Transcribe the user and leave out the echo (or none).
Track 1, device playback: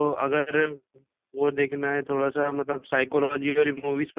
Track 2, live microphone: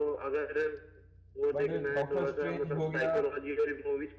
बट डॉक्टर स्ट्रेंज हो गया